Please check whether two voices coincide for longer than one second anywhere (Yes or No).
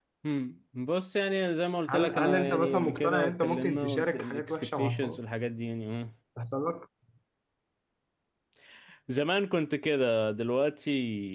Yes